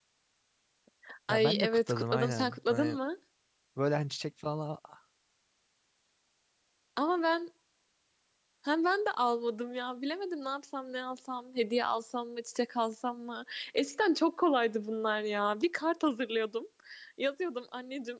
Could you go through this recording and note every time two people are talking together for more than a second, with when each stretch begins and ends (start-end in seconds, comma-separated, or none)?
1.3-3.0